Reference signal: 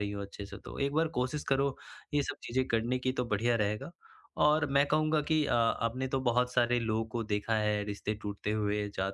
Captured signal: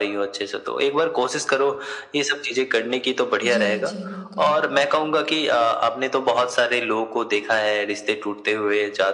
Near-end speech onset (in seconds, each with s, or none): 3.4 s